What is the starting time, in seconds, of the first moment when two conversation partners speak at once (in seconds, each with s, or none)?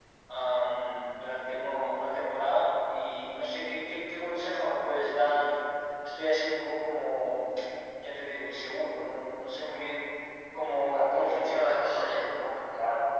10.9 s